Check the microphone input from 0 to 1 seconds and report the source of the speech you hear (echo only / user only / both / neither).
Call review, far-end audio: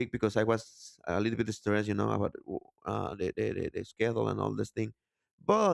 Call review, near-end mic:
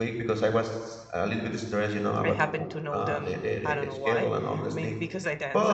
echo only